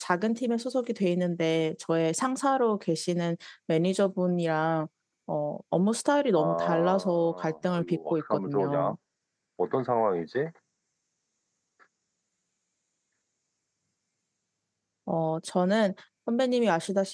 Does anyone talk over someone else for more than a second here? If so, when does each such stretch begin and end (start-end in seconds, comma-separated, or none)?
6.3-8.9